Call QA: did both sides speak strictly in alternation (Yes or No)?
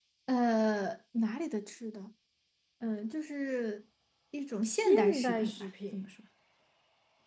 No